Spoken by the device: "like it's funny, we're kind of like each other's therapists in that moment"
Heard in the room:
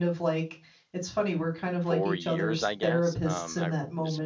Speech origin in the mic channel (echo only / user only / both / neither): both